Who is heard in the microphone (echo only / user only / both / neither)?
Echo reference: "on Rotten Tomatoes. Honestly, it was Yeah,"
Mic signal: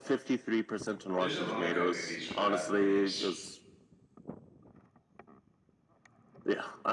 both